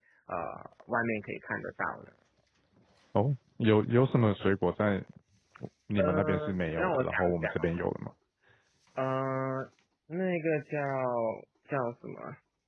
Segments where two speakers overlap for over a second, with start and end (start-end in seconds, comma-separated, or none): 6.0-7.8